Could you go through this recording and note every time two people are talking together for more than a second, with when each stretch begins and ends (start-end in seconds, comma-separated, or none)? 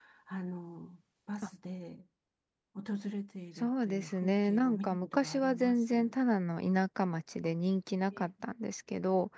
3.6-6.2